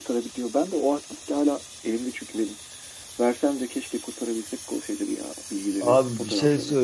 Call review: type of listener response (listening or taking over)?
taking over